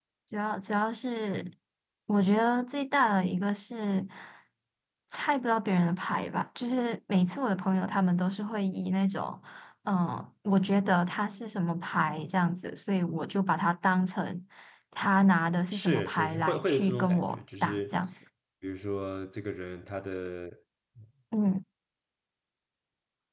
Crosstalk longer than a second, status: present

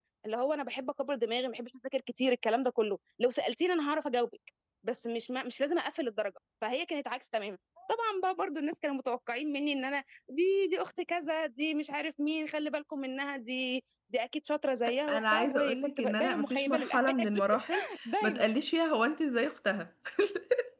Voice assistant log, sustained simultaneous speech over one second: present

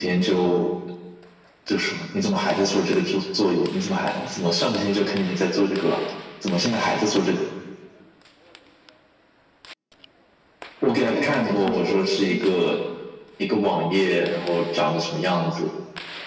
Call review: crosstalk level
present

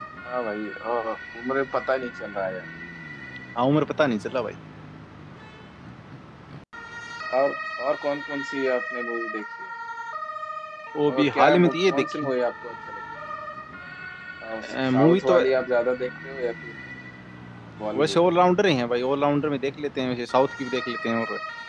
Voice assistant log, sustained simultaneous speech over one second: present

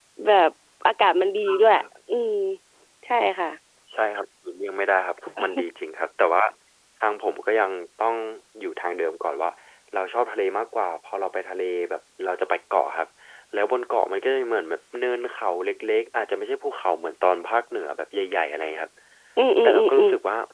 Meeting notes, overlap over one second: none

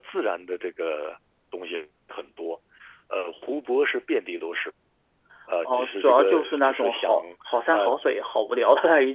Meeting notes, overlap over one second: present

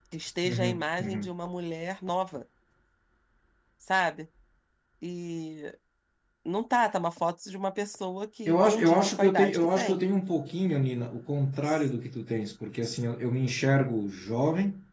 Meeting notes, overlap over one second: present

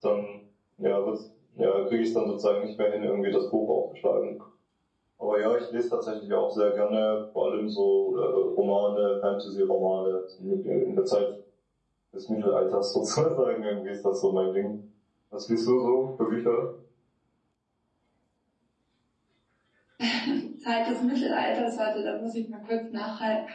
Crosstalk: none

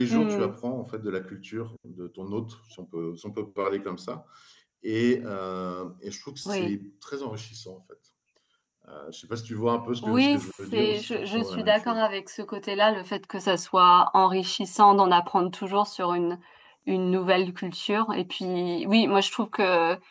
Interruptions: present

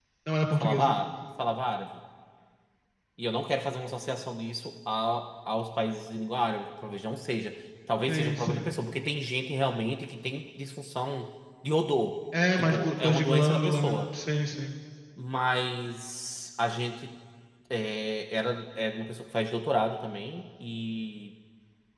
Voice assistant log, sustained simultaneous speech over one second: present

